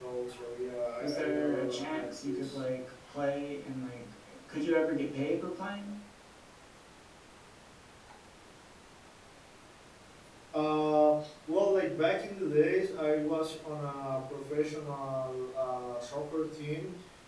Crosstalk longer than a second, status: present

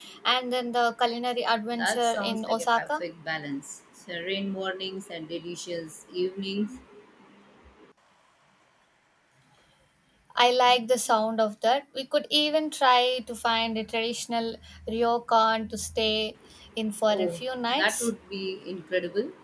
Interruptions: present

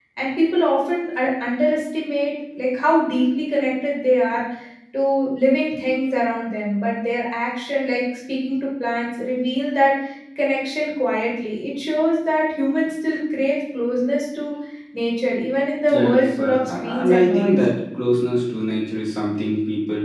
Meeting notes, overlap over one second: present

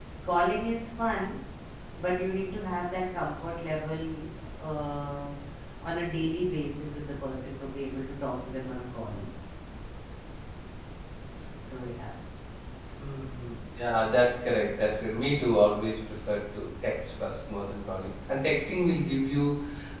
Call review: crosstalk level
none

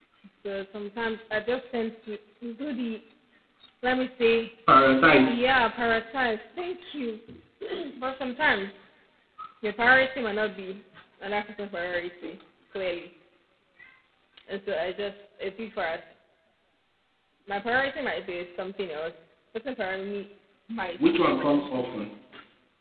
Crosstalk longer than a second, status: none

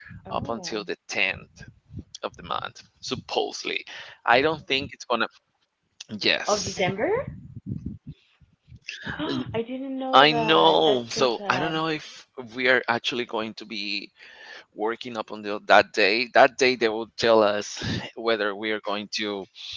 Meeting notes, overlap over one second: present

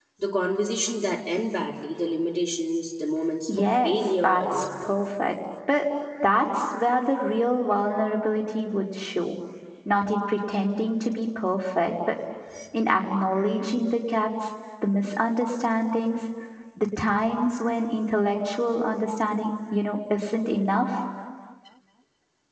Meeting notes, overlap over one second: present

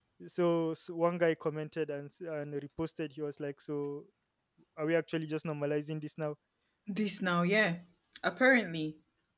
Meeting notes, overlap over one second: none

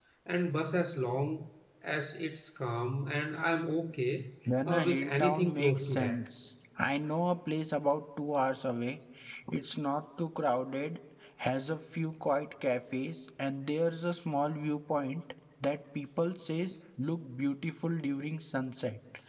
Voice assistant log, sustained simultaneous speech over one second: present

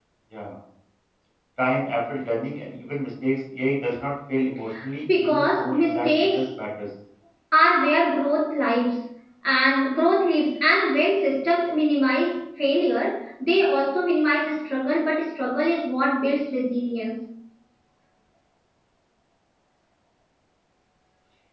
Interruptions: present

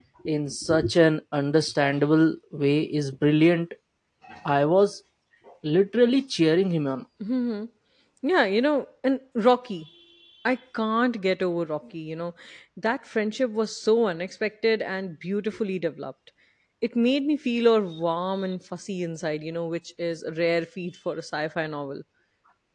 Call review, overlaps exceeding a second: none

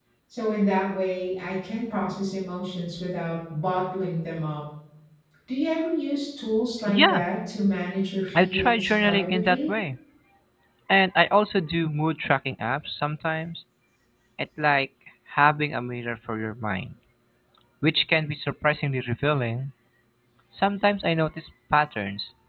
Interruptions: present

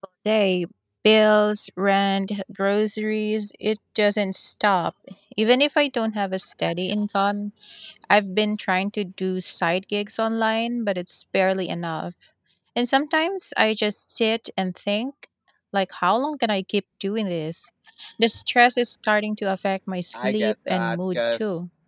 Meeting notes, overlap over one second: present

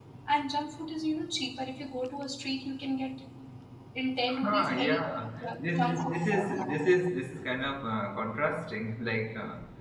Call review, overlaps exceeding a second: present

